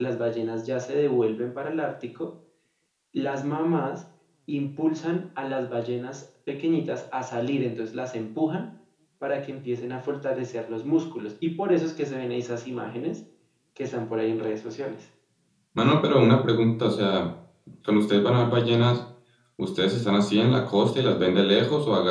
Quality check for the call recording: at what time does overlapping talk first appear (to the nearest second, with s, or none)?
none